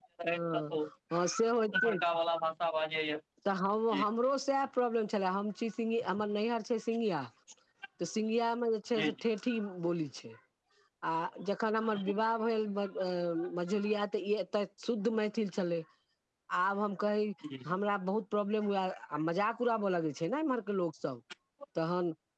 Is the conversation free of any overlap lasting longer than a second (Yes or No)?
Yes